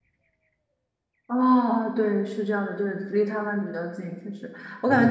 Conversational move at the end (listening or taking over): listening